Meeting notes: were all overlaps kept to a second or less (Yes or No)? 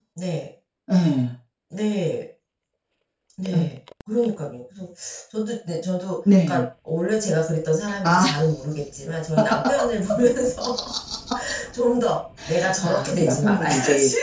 No